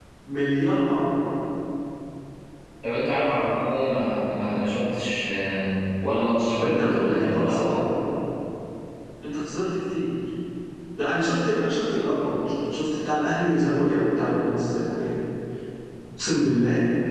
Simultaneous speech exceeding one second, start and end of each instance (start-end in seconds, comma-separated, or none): 6.4-7.8